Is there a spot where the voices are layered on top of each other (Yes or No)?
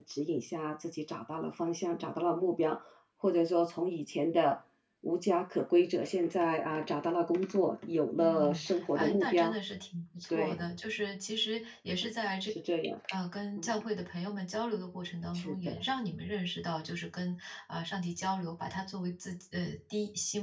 Yes